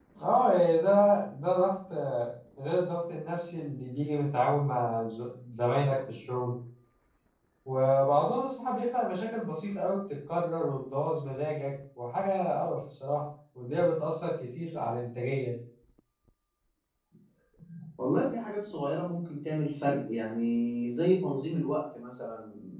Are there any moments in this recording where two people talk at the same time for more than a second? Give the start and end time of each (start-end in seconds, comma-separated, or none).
none